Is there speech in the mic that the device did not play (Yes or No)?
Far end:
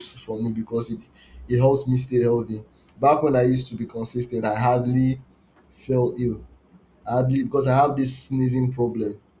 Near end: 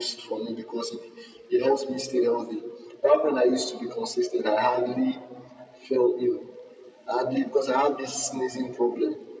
No